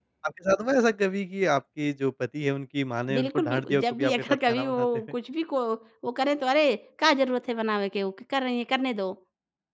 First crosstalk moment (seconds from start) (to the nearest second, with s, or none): 3 s